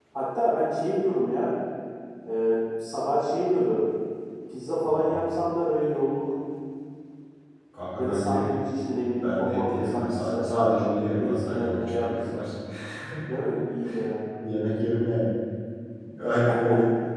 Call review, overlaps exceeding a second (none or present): present